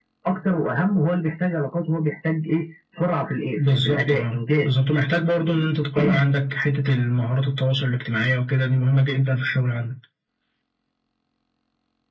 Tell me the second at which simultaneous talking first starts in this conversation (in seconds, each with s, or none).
3.6 s